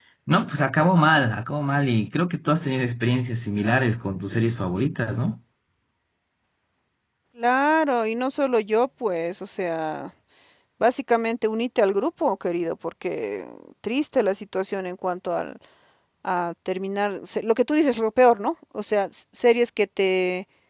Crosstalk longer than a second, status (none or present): none